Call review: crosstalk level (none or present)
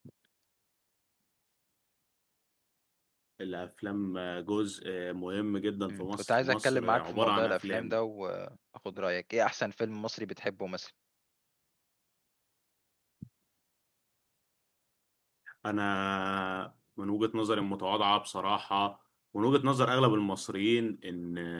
present